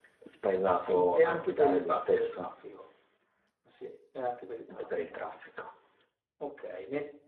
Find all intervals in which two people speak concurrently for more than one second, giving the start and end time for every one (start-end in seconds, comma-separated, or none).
0.7-2.5